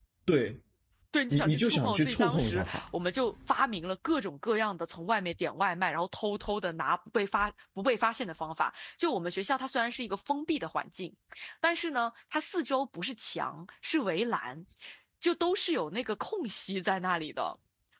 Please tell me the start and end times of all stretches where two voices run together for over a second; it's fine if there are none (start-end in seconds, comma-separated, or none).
1.3-2.8